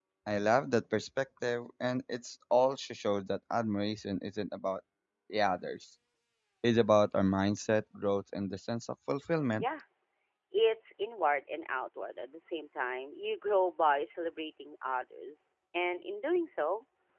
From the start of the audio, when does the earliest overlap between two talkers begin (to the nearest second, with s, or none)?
none